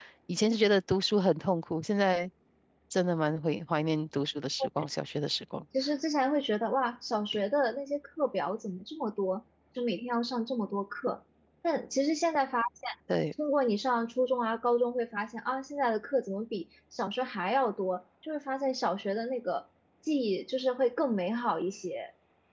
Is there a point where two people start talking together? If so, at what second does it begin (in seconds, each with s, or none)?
none